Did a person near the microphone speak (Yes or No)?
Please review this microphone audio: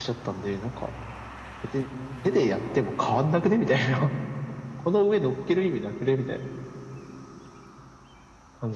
Yes